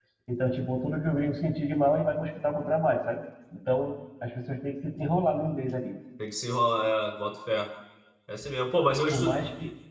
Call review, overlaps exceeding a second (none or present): none